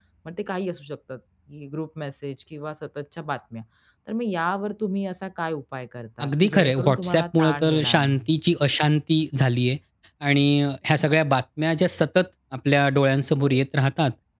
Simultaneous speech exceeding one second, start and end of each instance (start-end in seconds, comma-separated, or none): 6.2-8.2